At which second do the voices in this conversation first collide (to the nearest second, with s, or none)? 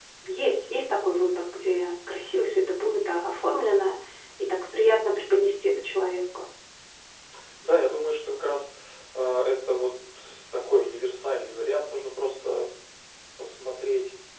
none